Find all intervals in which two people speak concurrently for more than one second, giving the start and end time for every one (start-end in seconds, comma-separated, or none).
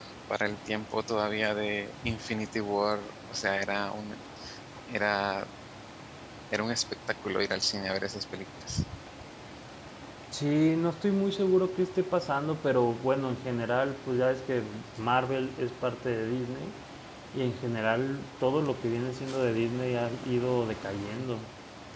none